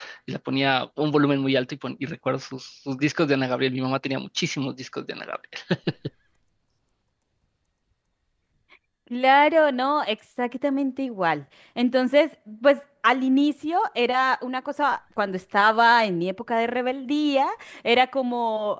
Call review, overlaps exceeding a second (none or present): none